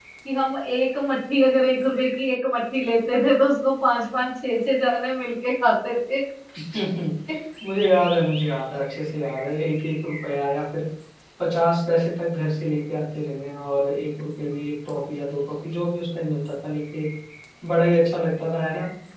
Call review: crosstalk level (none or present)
none